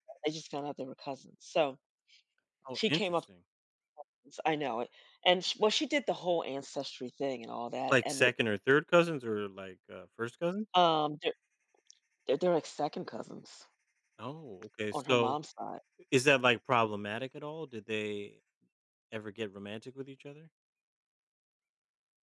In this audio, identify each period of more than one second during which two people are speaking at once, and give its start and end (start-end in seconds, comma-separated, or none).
none